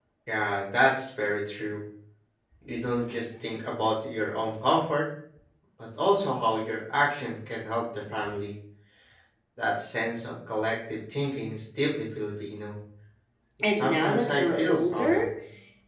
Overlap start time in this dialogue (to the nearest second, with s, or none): 14 s